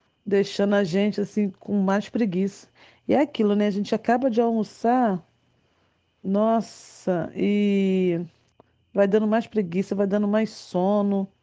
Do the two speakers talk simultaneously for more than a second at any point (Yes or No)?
No